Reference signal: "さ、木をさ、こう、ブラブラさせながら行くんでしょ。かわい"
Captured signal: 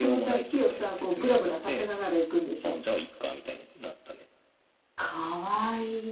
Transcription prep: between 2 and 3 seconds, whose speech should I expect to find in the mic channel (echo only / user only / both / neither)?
both